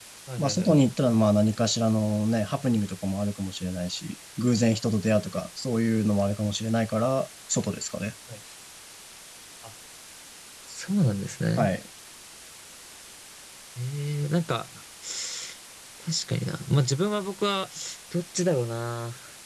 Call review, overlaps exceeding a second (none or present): none